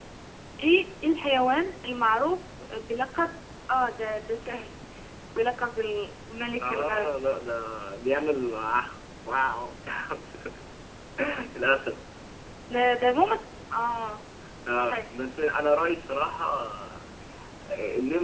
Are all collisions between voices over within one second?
Yes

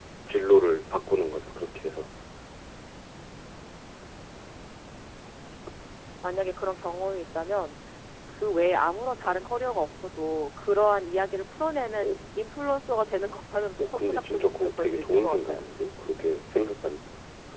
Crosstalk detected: Yes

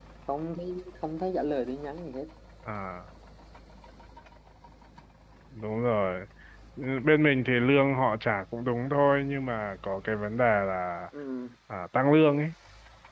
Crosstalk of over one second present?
No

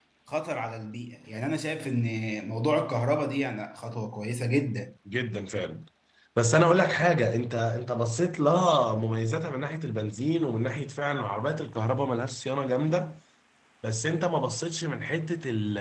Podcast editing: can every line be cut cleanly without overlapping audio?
Yes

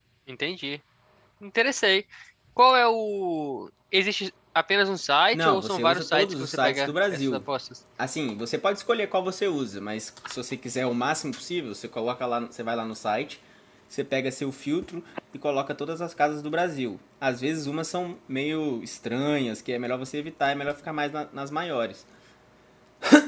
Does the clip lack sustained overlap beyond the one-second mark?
No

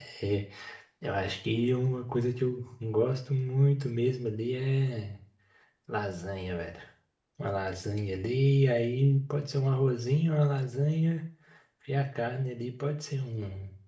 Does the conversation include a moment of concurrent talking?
No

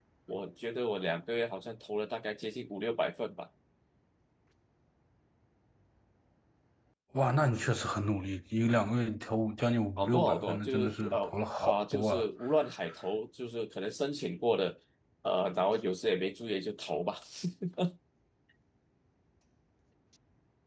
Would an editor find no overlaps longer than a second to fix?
No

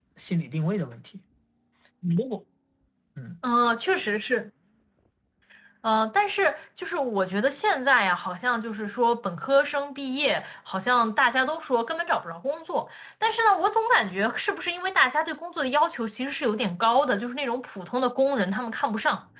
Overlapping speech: No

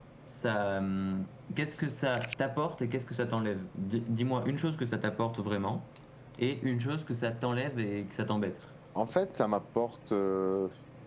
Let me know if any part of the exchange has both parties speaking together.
No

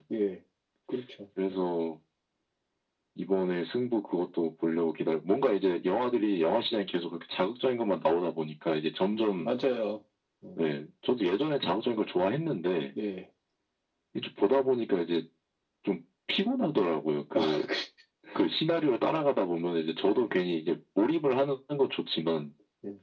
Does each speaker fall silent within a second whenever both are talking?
Yes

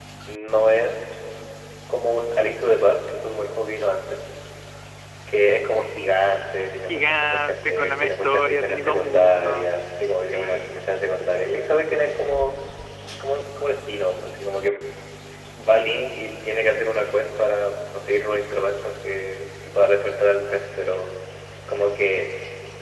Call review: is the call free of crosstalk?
No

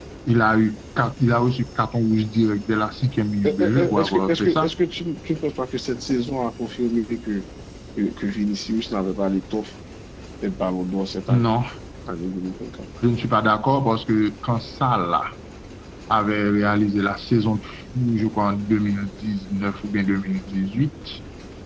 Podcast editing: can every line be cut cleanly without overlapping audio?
No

